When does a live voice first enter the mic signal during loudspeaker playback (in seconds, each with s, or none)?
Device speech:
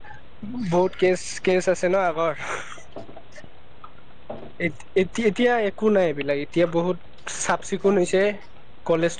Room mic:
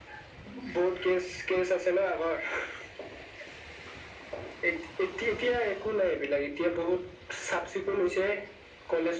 none